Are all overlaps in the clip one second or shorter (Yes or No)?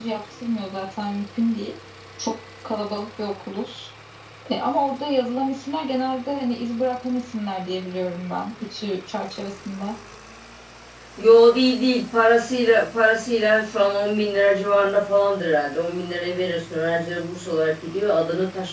Yes